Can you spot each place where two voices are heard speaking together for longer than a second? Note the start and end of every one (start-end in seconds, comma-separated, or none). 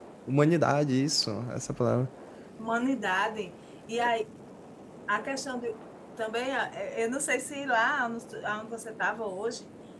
none